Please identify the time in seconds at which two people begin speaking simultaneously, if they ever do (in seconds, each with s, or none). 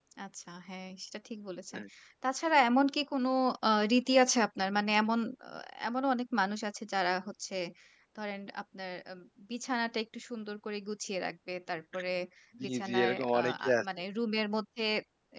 12.6 s